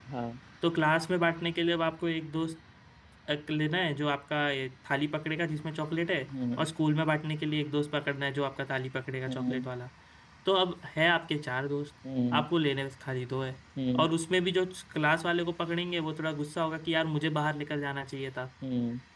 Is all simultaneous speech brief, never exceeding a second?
Yes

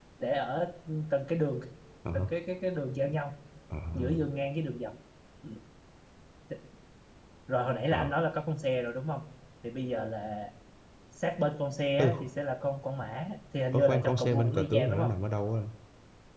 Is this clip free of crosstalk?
No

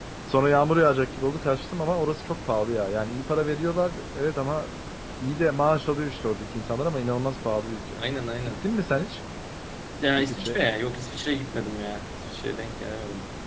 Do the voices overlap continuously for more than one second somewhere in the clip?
No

